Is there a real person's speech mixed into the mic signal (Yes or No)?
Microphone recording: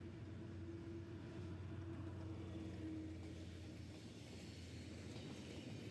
No